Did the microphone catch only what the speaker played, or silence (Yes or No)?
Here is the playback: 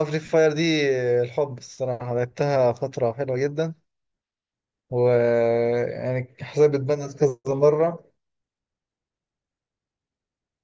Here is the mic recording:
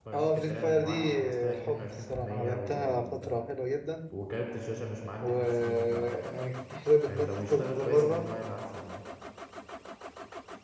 No